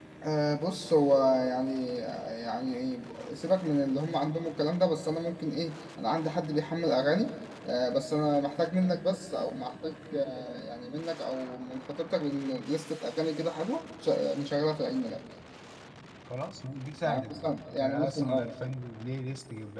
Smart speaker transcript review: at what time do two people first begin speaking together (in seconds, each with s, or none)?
17.0 s